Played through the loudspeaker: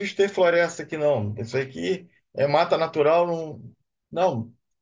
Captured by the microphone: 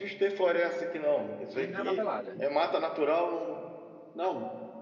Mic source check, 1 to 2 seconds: both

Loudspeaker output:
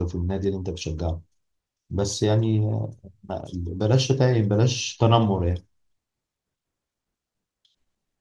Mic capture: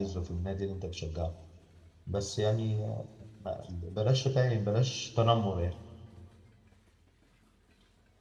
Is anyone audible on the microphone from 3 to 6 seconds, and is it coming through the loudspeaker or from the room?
echo only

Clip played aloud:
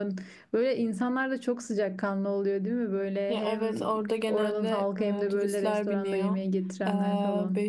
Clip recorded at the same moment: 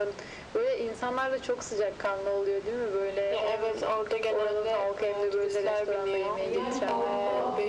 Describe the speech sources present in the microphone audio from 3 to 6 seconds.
echo only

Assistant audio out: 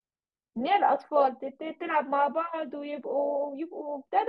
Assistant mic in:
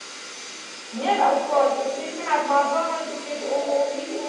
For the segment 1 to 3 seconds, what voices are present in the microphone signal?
echo only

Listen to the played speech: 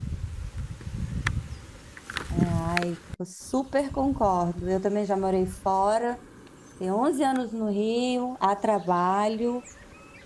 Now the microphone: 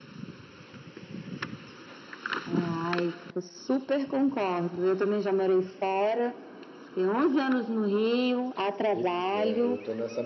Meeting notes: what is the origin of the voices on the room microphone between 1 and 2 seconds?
neither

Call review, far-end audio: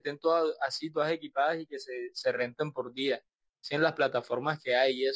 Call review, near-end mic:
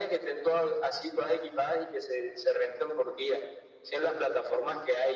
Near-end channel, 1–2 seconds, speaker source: echo only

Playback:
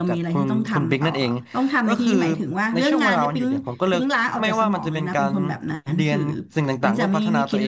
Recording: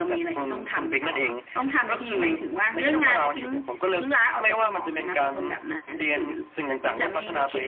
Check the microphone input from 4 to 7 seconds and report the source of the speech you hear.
echo only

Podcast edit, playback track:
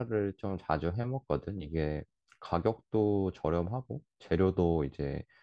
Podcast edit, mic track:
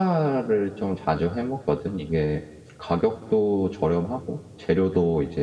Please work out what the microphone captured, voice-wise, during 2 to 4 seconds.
echo only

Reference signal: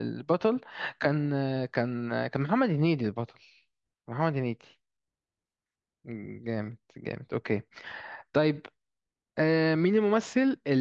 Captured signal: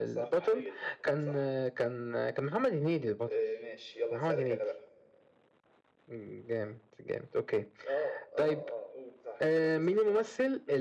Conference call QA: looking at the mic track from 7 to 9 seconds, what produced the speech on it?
both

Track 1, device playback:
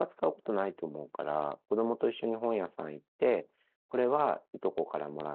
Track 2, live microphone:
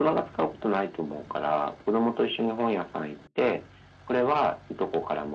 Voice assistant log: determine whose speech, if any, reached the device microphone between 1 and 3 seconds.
echo only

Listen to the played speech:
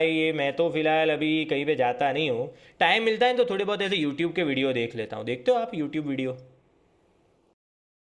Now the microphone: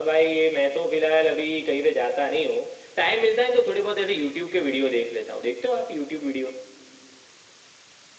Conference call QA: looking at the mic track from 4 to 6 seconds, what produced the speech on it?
echo only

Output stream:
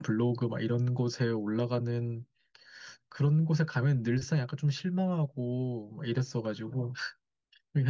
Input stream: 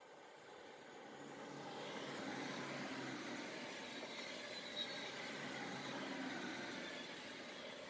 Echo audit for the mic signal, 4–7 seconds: neither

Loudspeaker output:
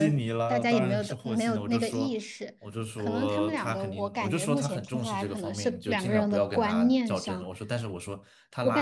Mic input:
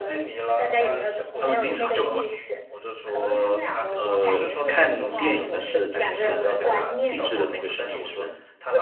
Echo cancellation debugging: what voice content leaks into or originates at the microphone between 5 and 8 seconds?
both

